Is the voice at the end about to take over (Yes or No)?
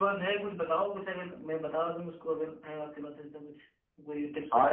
Yes